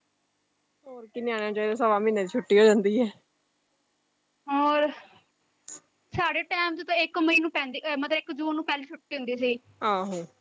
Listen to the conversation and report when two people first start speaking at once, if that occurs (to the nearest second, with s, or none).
none